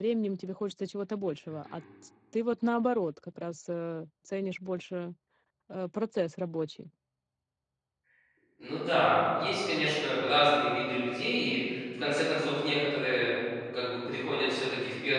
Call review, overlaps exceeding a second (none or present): none